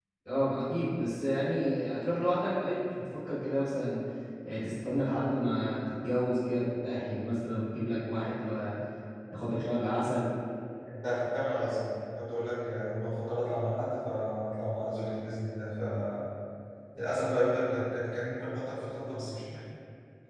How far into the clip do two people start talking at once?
none

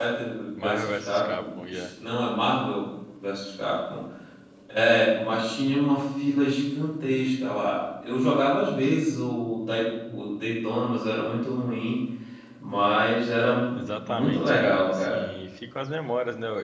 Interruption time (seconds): 0.6 s

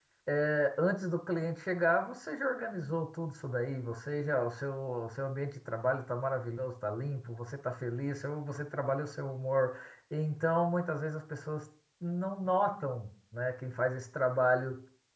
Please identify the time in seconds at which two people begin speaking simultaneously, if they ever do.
none

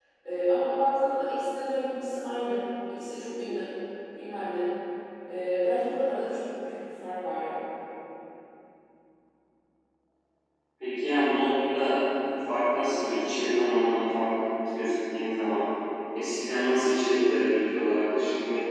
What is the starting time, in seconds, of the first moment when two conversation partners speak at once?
none

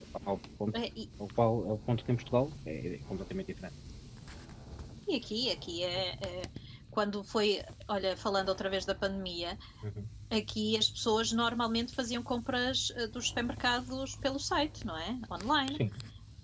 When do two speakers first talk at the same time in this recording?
none

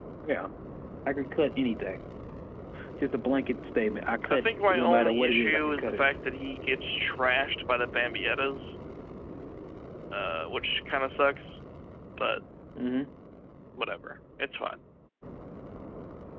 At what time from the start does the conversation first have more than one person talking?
4.3 s

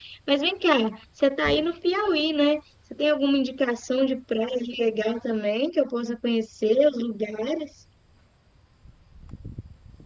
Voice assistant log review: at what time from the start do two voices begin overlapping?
none

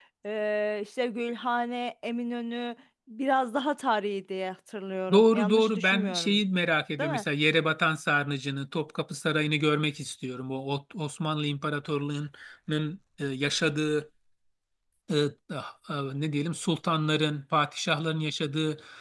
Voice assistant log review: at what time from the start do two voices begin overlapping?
5.1 s

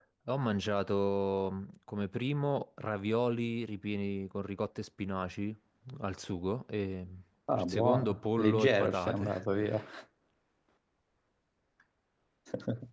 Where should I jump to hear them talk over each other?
7.5 s

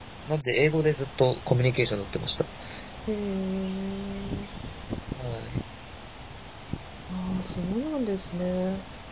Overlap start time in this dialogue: none

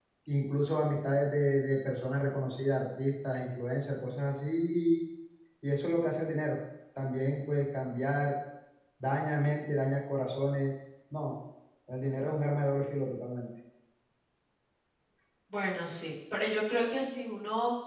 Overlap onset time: none

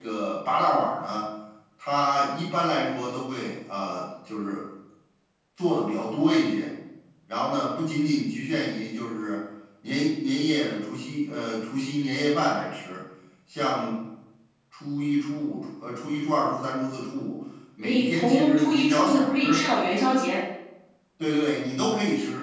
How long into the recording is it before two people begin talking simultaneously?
17.8 s

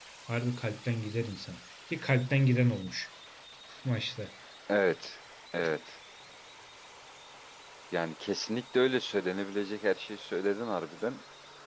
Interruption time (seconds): none

